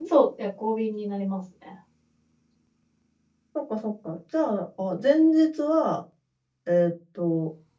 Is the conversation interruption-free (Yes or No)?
Yes